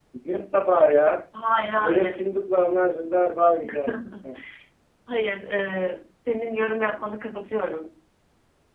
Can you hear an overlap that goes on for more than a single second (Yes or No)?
No